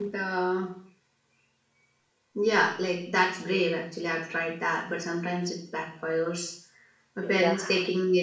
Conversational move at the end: listening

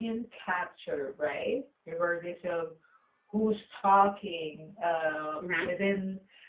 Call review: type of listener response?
listening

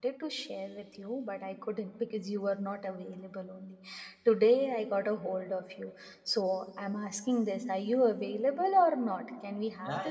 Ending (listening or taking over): taking over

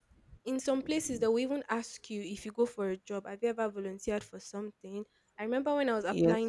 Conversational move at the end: taking over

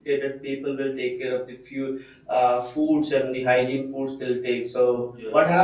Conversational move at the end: listening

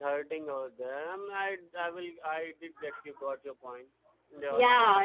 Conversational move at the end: taking over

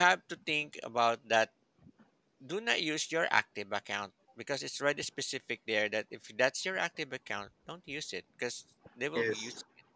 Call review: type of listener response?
listening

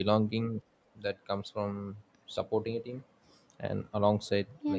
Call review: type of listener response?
listening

